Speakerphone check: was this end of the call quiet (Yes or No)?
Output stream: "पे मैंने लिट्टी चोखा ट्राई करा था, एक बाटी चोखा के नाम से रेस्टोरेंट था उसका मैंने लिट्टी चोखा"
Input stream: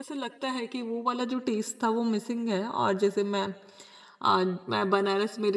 No